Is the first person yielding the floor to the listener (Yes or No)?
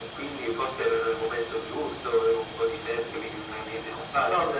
Yes